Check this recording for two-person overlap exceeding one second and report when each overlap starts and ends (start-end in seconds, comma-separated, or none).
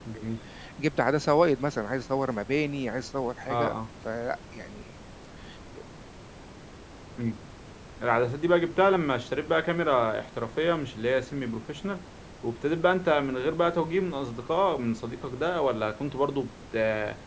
none